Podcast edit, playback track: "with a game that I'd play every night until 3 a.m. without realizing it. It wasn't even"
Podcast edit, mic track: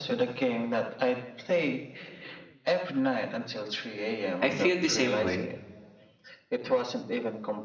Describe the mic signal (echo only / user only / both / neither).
both